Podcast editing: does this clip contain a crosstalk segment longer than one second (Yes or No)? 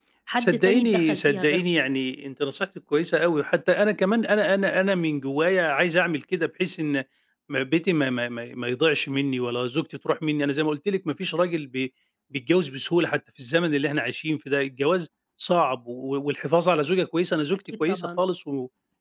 Yes